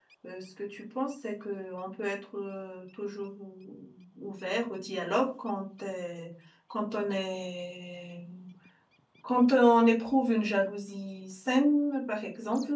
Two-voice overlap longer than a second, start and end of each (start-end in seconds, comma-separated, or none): none